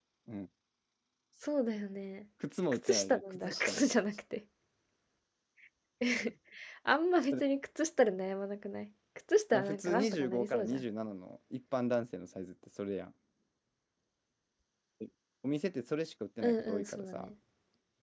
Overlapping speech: Yes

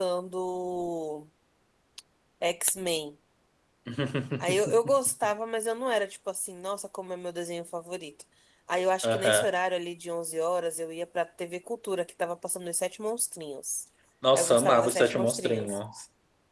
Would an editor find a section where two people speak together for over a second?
Yes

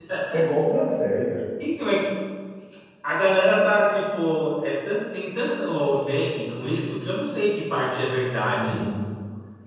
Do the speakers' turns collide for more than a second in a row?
No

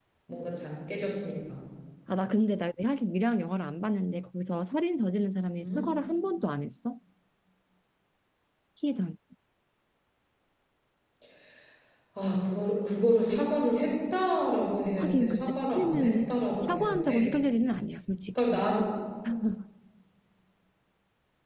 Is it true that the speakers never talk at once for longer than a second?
No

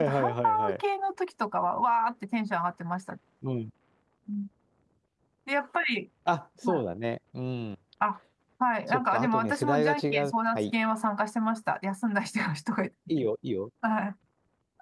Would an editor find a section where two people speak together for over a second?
Yes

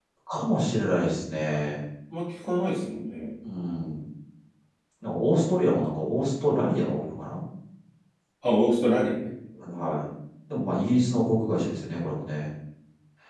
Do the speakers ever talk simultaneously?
No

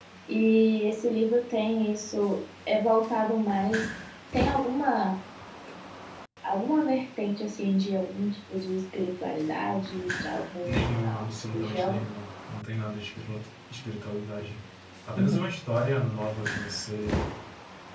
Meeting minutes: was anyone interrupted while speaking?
Yes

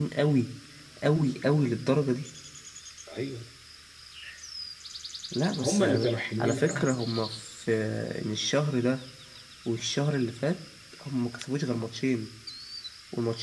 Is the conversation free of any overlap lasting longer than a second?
No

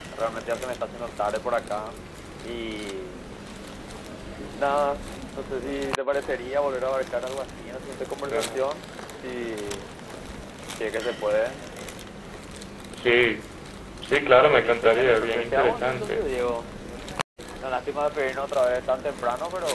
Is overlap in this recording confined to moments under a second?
No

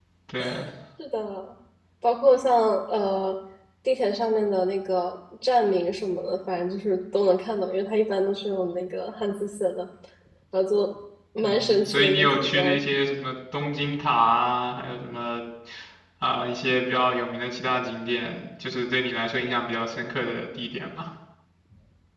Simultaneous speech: Yes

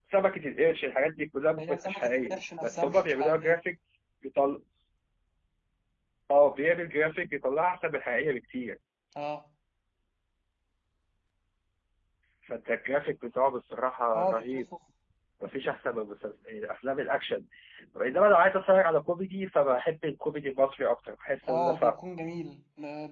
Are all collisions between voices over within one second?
No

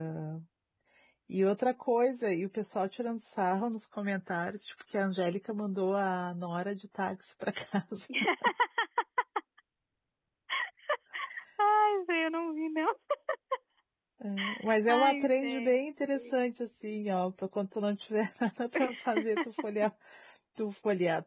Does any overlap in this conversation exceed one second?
Yes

